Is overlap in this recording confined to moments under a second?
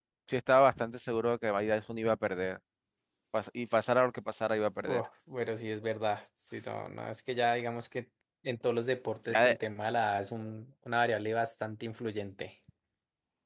Yes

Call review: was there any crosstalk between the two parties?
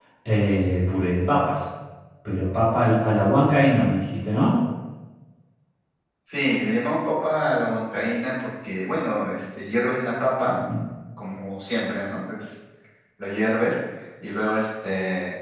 No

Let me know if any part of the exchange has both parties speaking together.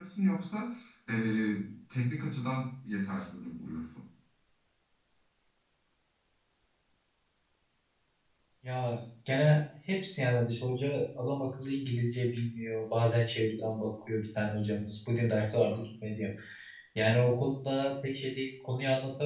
No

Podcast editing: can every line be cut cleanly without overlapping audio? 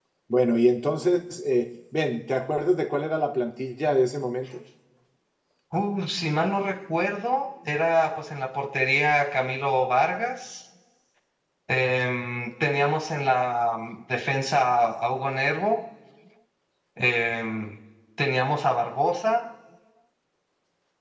Yes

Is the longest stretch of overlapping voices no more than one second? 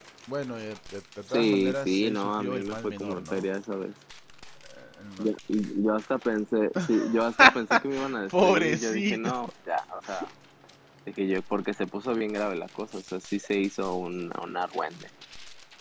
No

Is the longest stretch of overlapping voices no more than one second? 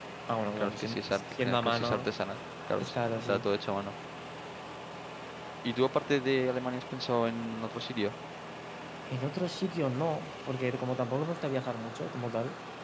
No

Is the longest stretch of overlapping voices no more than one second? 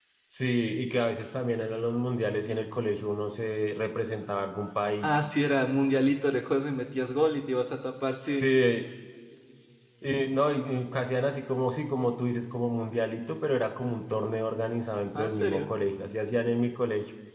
Yes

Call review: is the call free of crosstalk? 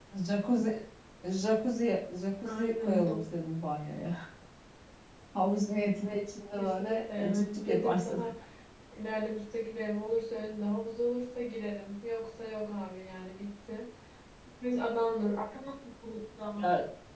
No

